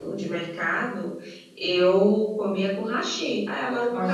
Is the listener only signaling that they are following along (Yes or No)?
No